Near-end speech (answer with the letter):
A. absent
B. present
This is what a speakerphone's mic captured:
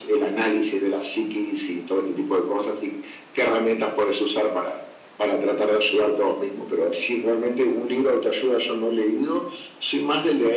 A